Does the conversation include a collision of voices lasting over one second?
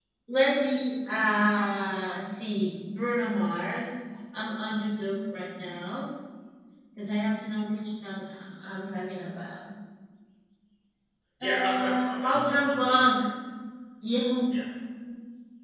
Yes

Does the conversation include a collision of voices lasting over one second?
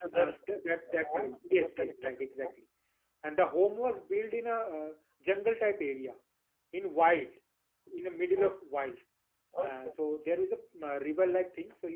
Yes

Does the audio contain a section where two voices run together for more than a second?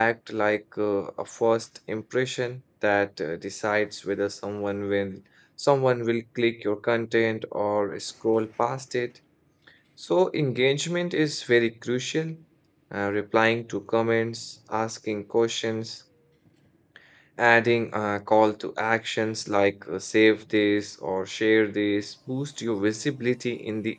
No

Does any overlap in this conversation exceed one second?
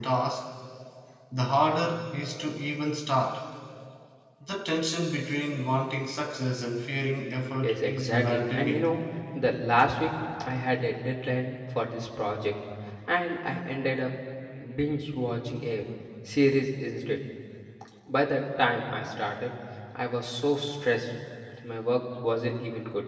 Yes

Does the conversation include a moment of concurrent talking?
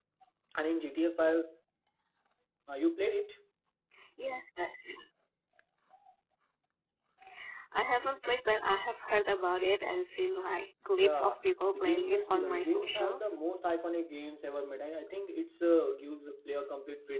Yes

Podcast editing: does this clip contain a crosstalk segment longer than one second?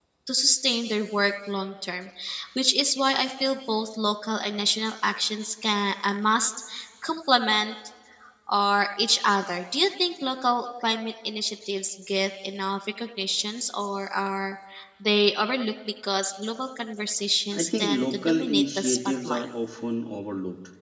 Yes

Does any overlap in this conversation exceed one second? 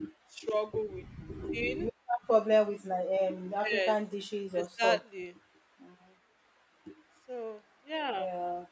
No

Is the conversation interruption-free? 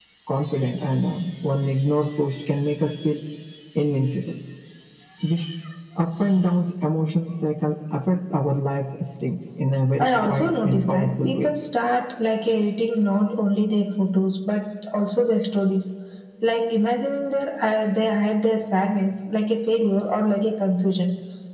No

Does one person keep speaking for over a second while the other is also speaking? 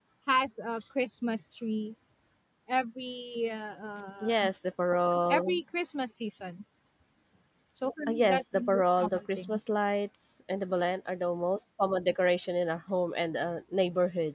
Yes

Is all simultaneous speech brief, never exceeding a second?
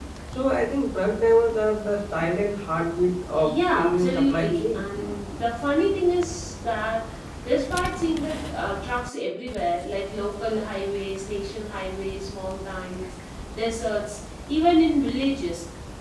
No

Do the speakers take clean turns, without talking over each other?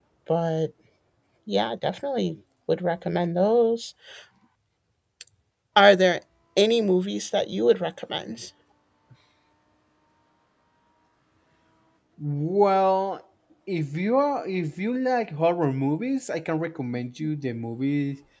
Yes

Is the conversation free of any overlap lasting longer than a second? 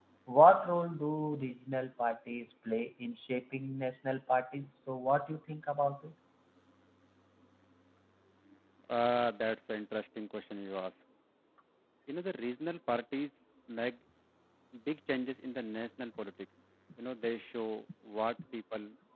Yes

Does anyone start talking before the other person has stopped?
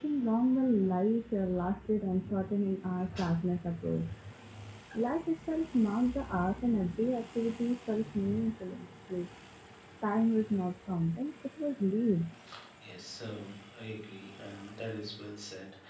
No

